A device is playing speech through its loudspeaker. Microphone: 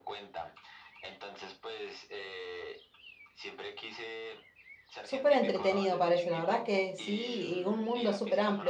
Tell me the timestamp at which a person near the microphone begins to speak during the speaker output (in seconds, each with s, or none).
5.0 s